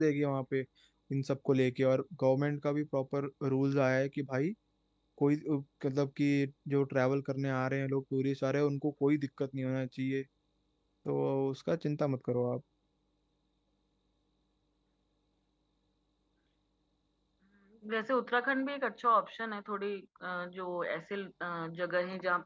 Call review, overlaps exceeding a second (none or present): none